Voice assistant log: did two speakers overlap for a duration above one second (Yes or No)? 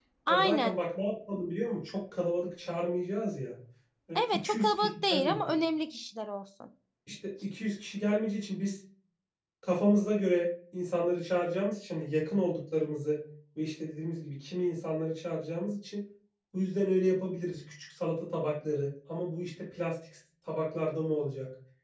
Yes